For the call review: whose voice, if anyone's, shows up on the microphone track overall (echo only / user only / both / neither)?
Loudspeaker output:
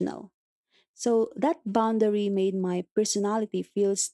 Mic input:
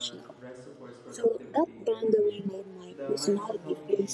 both